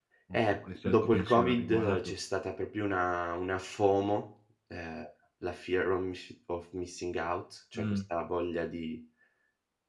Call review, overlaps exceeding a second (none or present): present